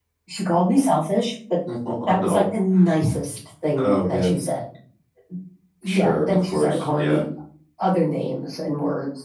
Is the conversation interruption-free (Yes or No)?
No